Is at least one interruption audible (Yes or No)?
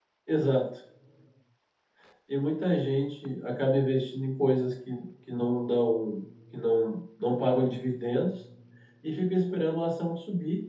No